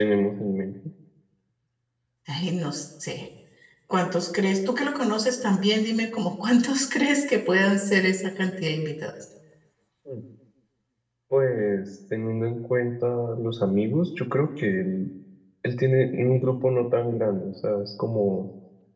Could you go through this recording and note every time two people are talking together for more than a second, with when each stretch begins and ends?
none

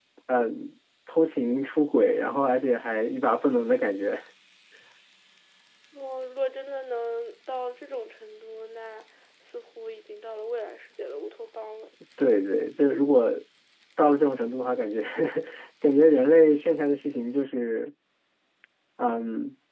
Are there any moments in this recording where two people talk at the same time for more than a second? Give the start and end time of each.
none

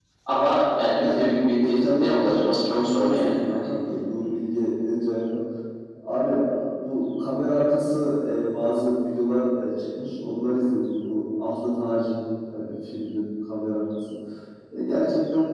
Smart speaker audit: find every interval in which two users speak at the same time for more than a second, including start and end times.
1.8-3.7

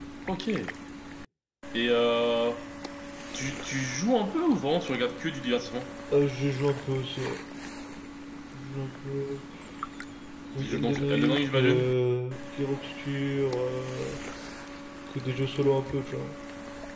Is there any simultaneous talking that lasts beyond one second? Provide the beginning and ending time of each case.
10.6-11.9

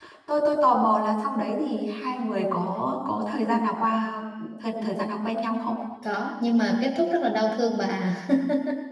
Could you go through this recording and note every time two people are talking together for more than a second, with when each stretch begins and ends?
none

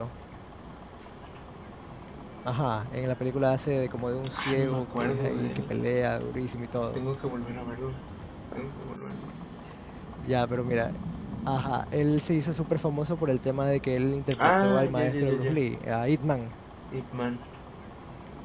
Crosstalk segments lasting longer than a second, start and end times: 4.4-5.8, 14.4-15.6

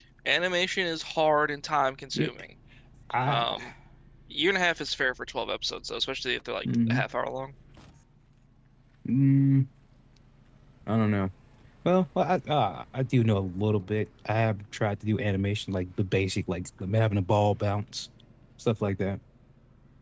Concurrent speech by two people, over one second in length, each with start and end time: none

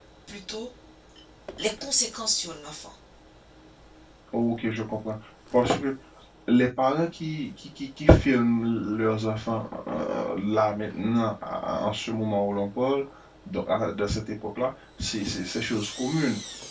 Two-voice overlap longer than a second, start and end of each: none

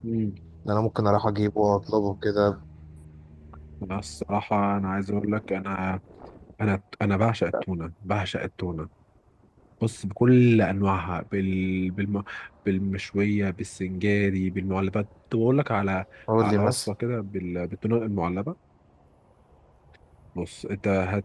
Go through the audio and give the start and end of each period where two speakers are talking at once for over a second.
none

